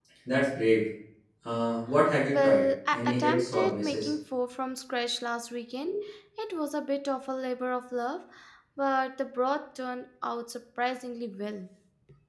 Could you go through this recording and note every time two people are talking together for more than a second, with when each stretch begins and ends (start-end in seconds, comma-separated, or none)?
2.3-4.1